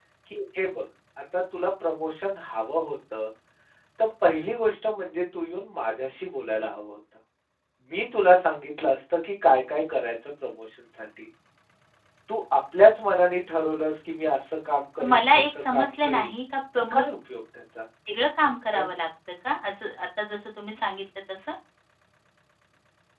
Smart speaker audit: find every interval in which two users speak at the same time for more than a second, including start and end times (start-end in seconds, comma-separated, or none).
15.0-16.3